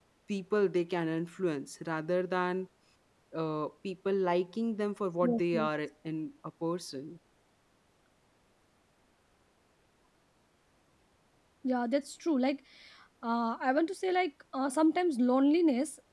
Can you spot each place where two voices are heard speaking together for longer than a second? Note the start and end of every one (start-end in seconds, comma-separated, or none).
none